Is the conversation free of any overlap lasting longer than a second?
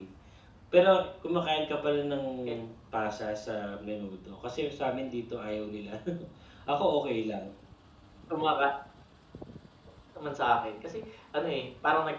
Yes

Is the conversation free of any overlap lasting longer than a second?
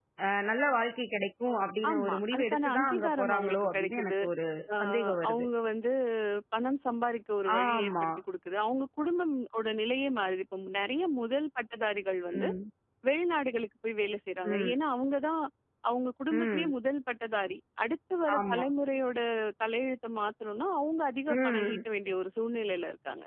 No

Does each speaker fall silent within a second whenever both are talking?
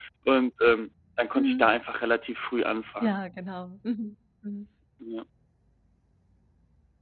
Yes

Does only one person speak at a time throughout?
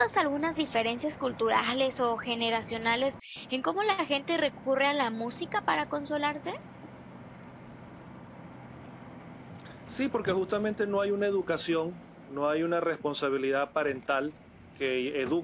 Yes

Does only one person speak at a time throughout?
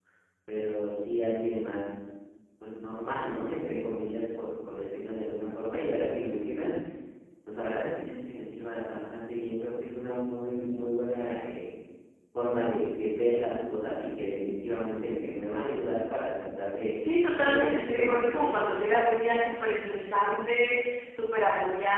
No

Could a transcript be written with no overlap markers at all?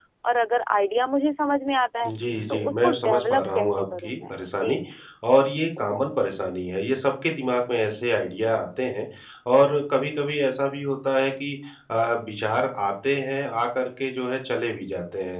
No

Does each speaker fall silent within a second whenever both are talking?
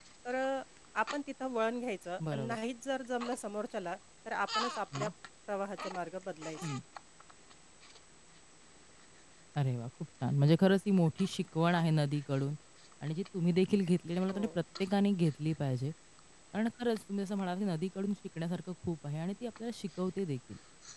Yes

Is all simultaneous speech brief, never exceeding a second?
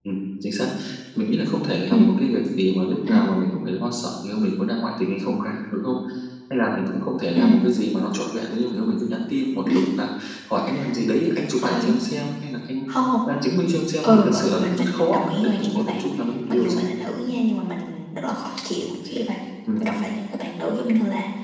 No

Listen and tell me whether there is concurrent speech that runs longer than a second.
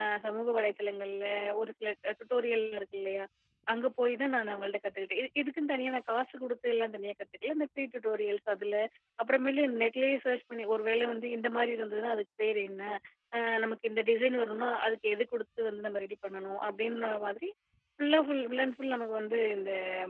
No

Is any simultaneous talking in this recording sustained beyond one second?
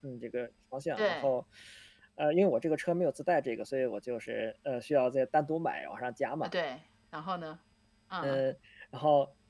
No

